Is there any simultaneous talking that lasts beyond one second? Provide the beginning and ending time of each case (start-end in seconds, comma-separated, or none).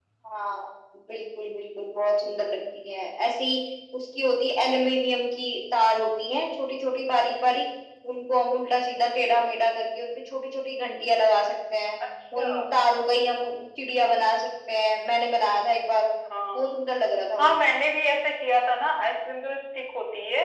none